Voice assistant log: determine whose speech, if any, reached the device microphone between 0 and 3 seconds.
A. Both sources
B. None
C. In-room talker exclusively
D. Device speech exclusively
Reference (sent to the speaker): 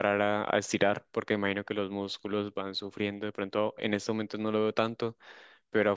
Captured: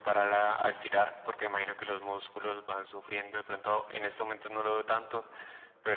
D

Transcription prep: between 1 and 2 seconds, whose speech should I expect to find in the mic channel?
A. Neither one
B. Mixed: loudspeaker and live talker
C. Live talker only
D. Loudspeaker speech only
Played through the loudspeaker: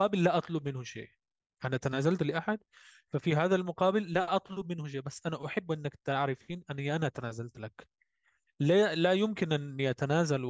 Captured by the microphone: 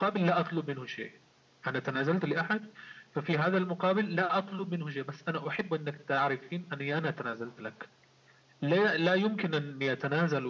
D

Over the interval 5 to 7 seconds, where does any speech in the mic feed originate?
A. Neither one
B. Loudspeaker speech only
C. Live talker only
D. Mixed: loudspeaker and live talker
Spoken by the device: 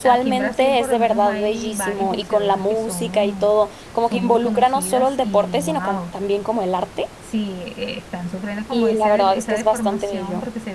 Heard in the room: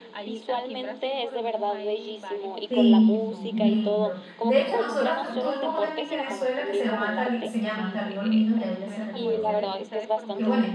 D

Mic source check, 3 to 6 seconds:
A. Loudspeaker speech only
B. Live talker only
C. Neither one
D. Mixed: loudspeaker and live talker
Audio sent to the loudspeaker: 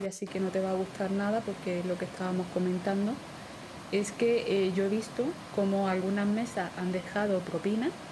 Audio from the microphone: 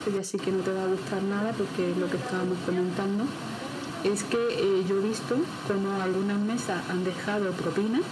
D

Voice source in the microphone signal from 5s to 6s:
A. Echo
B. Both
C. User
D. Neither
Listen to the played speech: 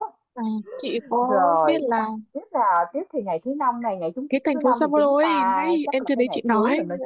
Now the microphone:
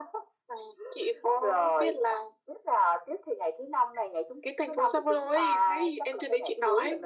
A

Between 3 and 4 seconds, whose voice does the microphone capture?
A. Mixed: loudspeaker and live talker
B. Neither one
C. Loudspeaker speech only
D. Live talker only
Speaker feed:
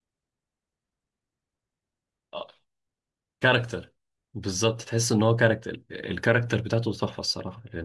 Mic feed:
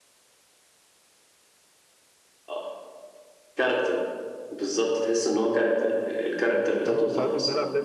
C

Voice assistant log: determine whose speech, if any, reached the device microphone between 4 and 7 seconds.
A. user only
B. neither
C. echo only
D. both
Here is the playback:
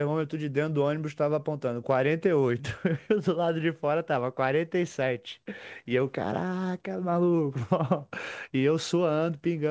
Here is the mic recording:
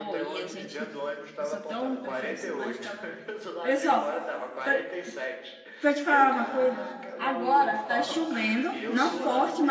D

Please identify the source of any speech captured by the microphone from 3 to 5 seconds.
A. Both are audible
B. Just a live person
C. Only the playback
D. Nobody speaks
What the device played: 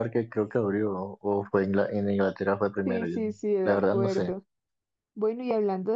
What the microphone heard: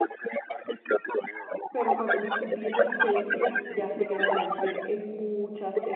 A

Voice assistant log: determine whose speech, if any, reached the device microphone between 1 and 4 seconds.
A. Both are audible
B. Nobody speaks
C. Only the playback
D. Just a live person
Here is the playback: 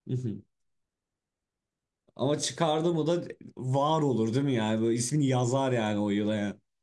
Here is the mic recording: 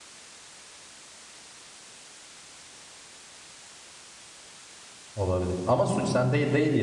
B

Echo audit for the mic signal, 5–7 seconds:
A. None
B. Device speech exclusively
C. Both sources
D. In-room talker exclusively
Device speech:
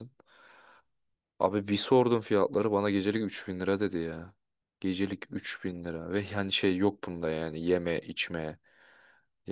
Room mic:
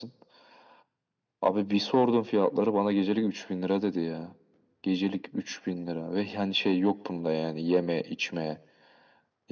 B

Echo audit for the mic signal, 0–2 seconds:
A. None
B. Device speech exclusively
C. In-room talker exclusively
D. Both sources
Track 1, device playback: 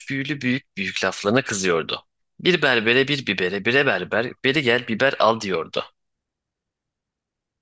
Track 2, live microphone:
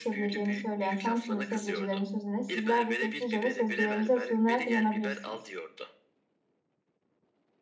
D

